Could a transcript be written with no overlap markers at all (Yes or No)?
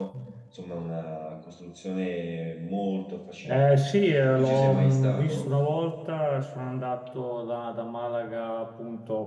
No